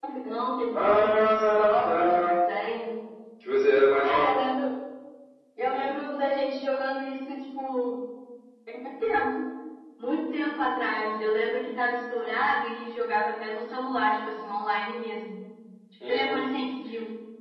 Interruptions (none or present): present